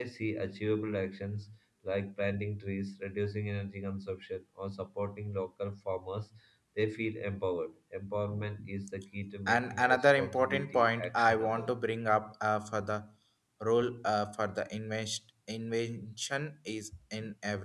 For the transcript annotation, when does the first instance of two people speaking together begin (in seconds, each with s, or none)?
9.5 s